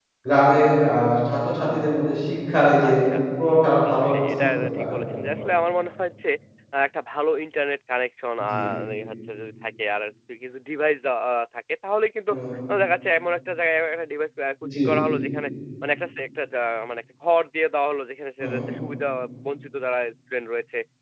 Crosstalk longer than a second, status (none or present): present